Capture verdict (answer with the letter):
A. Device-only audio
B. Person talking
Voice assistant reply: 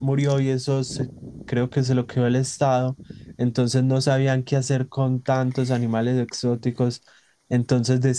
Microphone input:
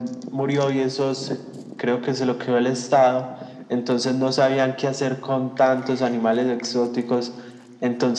A